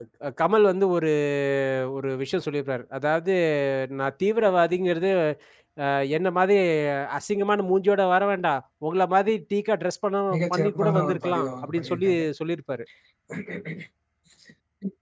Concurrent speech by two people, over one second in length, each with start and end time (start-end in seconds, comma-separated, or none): 10.5-12.2